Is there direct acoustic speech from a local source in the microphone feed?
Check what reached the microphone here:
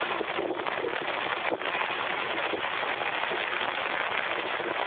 No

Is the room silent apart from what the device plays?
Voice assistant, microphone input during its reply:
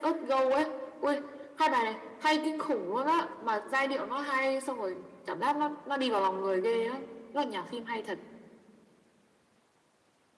Yes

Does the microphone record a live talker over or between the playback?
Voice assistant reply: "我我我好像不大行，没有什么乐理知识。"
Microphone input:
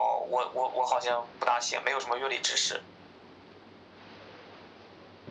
No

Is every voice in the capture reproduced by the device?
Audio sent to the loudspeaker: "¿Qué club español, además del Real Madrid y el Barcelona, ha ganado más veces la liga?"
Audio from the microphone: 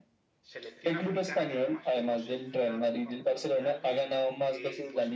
No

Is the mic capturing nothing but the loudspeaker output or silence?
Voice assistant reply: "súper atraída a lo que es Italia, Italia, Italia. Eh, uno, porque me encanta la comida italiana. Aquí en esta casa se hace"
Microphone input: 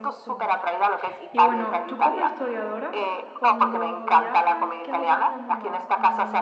No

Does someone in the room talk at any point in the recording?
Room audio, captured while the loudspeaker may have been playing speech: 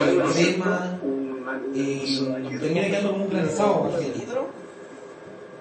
Yes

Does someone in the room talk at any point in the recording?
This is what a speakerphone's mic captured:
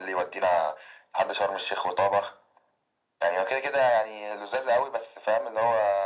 No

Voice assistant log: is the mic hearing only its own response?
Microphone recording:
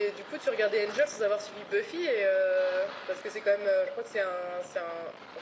Yes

